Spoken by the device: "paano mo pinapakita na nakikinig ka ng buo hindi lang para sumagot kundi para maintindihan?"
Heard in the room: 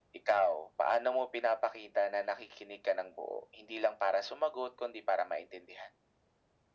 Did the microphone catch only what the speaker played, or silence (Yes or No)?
Yes